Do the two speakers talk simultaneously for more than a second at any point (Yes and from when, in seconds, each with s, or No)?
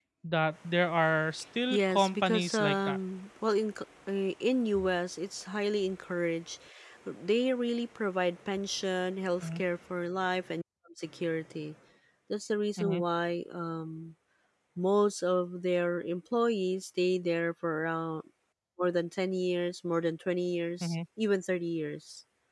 Yes, from 1.7 s